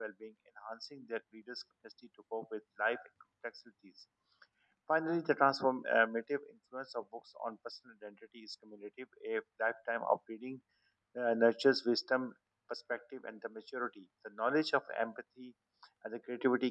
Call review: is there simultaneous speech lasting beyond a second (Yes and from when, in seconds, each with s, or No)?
No